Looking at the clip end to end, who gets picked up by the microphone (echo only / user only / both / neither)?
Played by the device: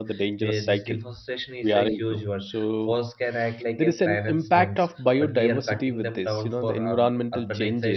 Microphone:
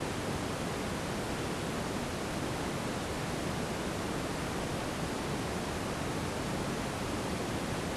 neither